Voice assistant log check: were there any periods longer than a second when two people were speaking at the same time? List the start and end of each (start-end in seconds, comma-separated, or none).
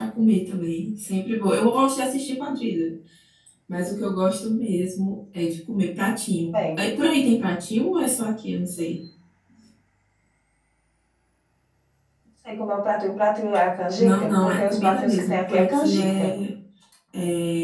14.0-16.2